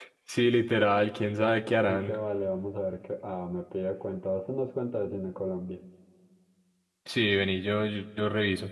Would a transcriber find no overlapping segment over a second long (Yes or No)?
Yes